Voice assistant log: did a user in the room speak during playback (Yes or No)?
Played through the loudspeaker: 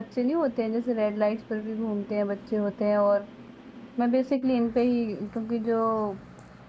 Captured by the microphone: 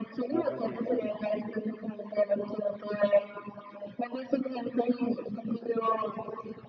Yes